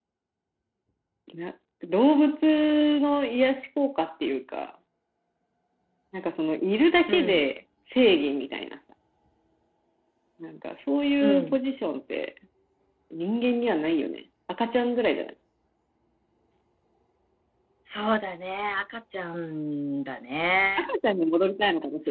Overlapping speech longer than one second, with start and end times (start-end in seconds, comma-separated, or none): none